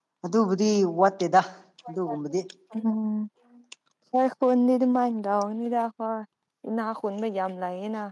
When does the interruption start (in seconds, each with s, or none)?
none